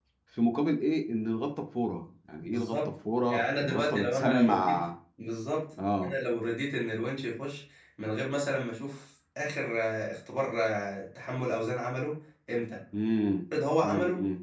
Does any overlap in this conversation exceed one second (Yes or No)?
Yes